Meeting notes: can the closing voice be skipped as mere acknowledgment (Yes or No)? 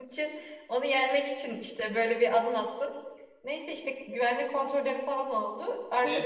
No